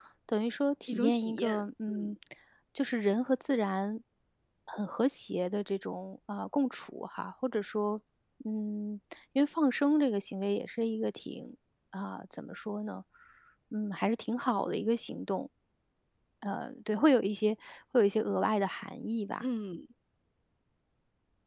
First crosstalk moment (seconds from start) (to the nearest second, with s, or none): 1 s